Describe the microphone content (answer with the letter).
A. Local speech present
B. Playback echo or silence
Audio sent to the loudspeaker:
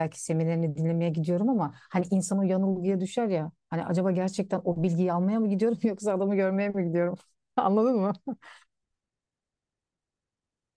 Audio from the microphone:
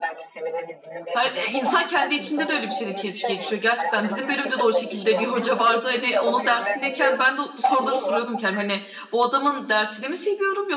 A